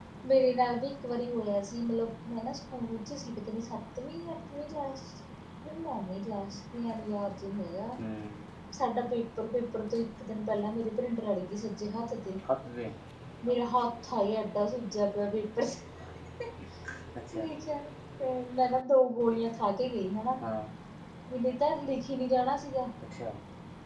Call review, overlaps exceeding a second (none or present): none